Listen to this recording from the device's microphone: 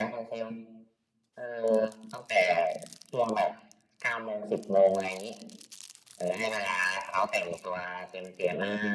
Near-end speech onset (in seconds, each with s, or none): none